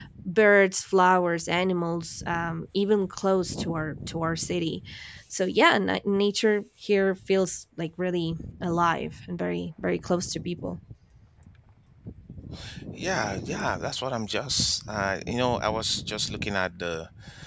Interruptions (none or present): none